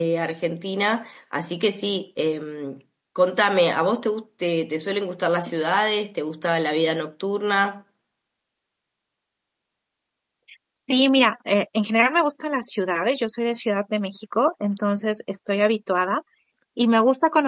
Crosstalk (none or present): none